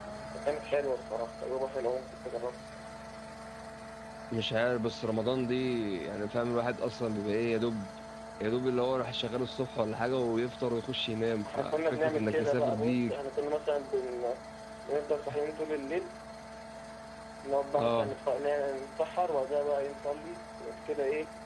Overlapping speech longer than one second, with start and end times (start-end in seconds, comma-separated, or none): 11.4-13.1